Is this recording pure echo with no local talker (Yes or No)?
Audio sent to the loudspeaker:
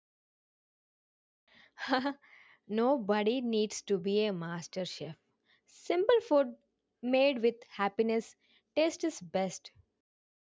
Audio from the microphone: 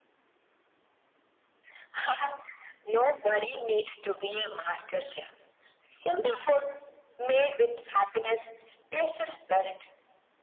Yes